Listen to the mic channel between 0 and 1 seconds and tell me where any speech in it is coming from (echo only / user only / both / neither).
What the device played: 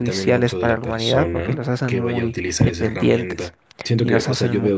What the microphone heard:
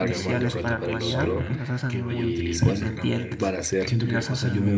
both